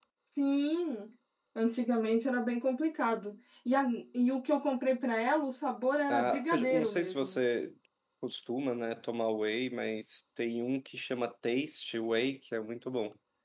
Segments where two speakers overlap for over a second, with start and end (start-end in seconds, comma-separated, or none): 6.1-7.4